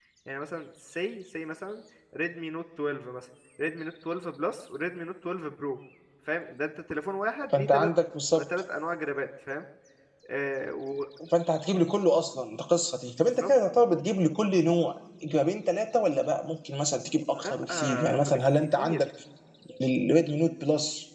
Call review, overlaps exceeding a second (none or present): present